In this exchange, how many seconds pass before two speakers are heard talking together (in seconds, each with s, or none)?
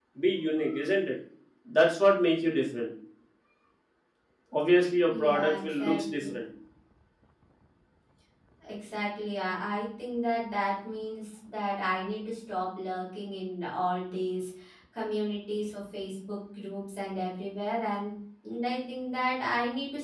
5.1 s